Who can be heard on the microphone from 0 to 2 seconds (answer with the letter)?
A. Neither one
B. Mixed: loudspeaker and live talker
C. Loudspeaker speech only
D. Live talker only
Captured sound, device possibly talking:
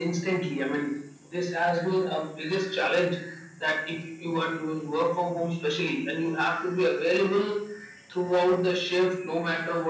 C